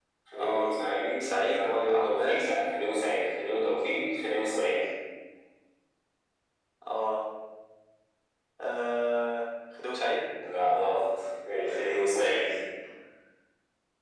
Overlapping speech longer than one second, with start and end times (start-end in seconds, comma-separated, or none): 1.2-2.5